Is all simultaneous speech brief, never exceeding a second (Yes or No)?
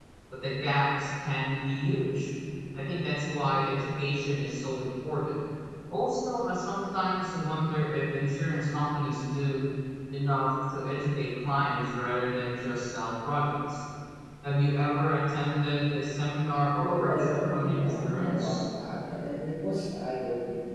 No